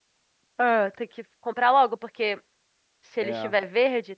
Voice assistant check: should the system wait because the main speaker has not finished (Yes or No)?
Yes